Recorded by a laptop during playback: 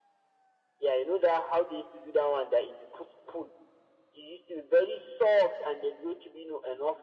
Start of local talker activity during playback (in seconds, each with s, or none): none